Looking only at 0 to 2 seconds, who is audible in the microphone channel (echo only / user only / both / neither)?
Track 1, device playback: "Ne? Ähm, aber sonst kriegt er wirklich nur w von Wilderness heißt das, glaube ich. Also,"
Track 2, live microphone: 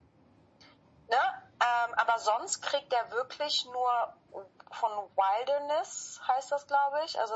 echo only